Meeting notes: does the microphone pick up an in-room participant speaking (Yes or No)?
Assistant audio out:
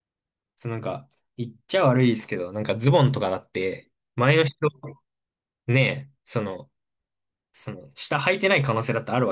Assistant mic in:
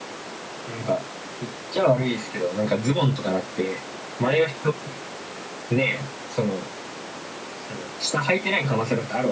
No